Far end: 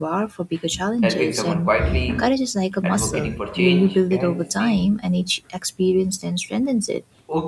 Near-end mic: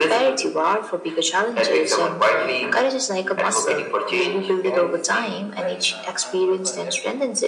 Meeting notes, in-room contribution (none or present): present